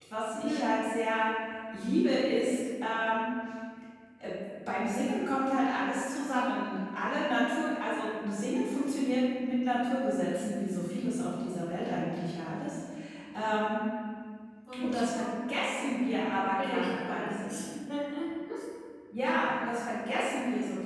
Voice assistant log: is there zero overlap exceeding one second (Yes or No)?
No